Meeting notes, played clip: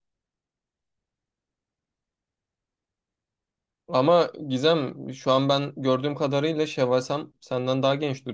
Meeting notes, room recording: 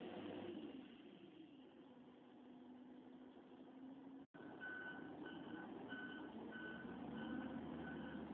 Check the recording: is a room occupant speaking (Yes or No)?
No